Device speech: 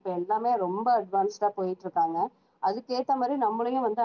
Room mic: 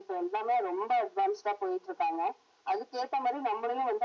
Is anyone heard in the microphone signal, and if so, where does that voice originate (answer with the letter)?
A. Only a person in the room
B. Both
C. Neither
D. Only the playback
D